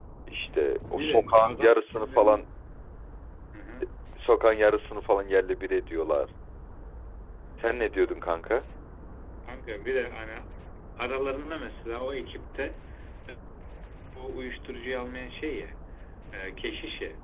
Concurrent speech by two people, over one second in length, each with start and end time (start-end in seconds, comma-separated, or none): 1.0-2.4